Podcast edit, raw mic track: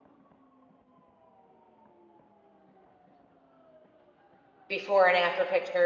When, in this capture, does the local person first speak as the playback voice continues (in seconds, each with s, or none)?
4.7 s